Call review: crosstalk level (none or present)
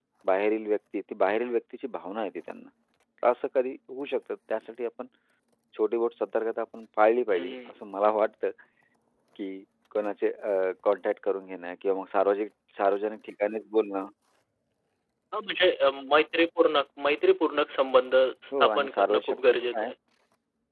present